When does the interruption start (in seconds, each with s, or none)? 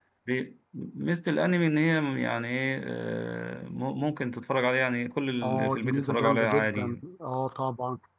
5.4 s